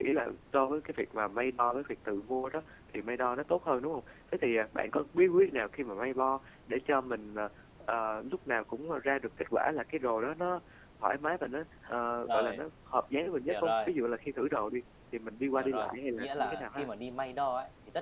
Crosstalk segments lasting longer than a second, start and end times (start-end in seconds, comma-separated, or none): 15.6-16.9